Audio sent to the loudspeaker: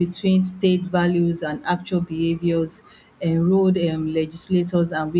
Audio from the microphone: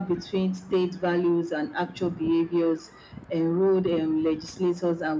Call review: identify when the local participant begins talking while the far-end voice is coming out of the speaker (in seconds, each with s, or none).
none